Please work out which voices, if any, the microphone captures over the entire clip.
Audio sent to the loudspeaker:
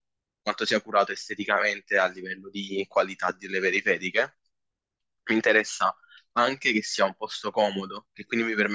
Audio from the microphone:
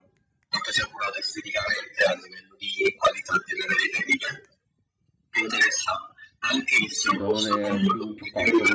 both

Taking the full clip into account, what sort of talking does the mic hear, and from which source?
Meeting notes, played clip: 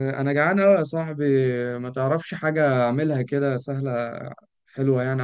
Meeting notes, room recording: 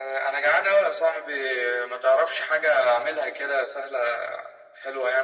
echo only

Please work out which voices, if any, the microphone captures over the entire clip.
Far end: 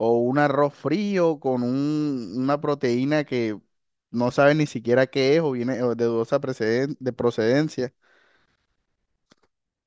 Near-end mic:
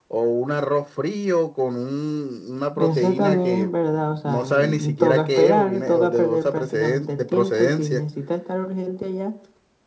both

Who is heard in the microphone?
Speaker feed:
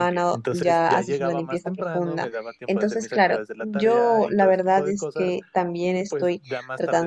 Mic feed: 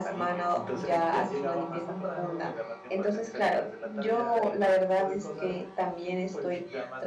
echo only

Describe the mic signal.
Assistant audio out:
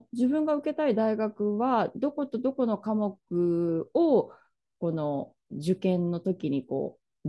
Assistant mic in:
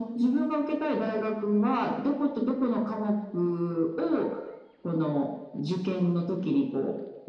echo only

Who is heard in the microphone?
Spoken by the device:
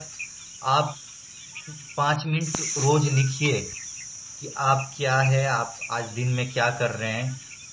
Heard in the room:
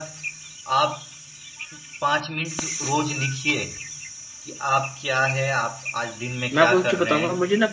both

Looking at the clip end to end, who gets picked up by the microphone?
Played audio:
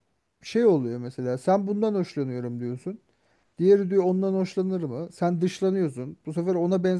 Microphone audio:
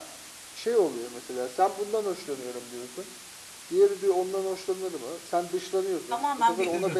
both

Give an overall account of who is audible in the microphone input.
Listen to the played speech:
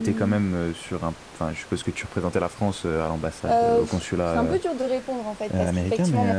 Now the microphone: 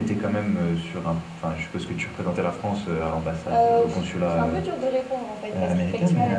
echo only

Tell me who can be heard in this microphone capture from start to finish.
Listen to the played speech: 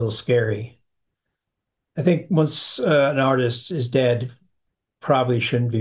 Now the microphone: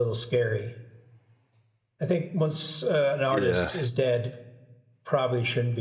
both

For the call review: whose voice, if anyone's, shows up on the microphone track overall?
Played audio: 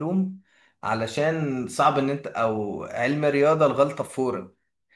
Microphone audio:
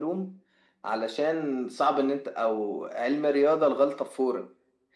echo only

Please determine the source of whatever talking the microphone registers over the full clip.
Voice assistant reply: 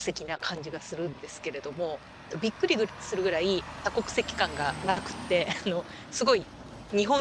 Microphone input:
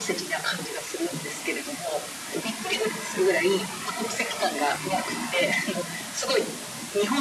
echo only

